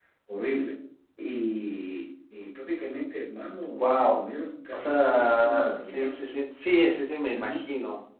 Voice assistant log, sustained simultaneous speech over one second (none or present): present